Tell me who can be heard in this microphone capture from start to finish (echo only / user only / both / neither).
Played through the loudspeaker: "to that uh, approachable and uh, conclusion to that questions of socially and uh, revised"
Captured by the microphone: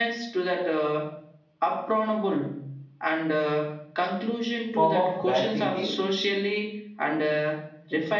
both